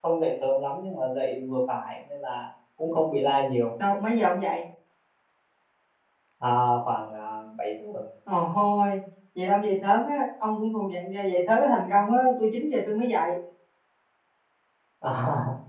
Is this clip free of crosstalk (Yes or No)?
Yes